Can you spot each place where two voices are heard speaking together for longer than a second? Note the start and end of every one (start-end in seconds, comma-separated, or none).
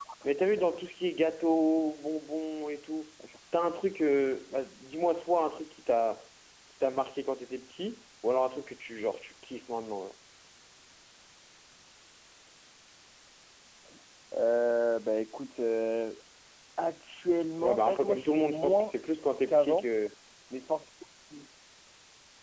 17.6-18.9